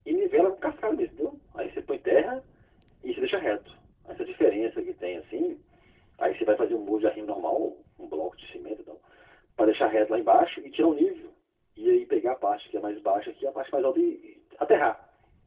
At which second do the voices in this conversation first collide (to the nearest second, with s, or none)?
none